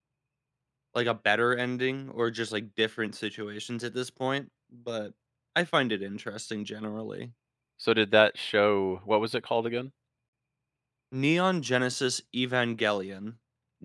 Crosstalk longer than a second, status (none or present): none